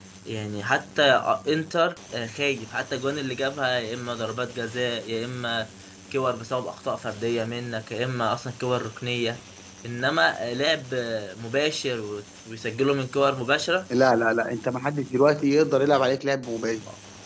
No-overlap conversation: Yes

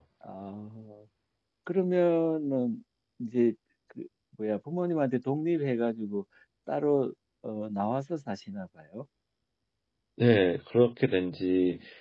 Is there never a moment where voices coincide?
Yes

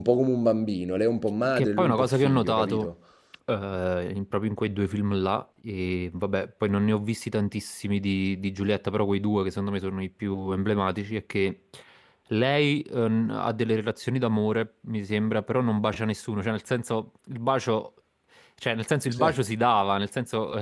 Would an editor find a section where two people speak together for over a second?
Yes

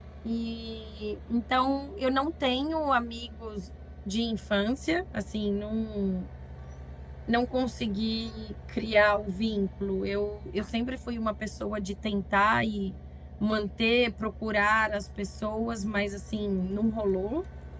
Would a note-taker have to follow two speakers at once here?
No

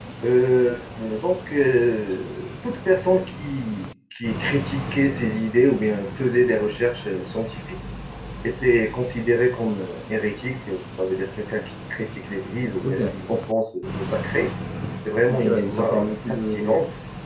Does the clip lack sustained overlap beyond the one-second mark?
No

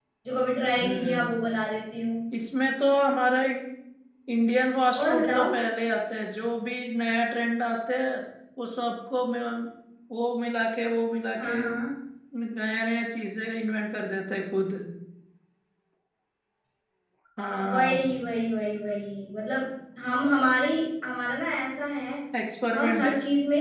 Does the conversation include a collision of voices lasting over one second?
No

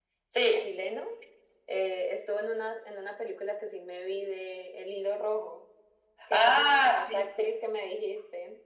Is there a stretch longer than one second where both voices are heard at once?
Yes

